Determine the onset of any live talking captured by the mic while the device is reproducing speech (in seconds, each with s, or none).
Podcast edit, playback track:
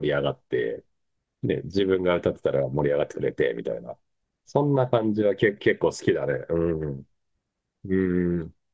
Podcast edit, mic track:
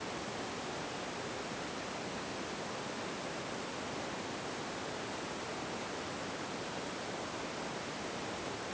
none